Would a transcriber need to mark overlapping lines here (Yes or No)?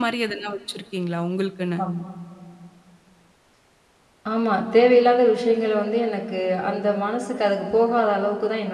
No